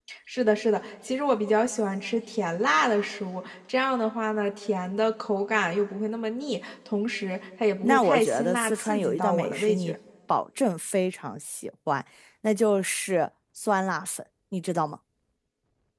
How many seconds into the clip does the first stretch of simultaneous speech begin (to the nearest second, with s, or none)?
8 s